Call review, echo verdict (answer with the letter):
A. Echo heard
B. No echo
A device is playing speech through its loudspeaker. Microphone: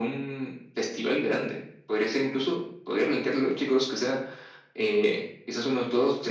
A